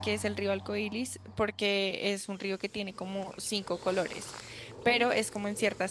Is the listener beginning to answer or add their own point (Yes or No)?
No